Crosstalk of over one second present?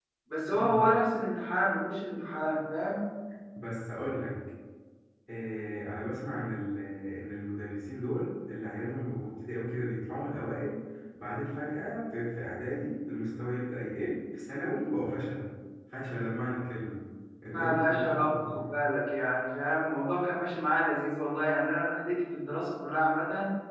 Yes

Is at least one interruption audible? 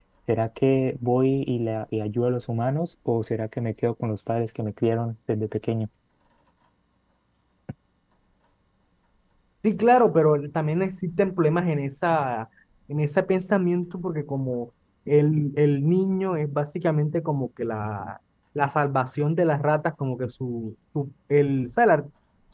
No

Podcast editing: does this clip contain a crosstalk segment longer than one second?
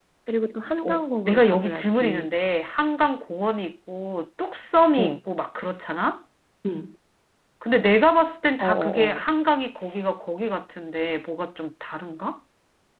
Yes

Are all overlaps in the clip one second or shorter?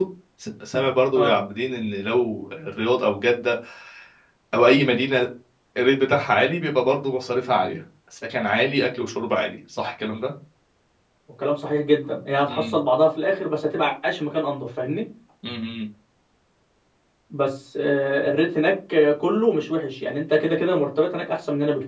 Yes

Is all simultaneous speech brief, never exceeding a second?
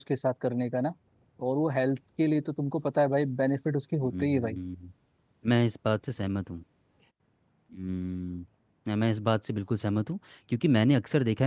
Yes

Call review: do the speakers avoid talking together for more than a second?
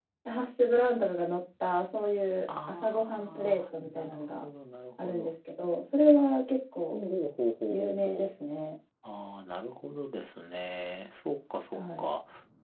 No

